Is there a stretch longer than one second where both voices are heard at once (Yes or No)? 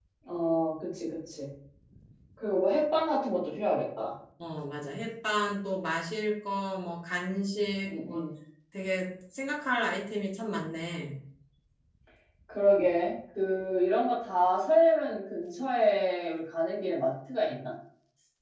No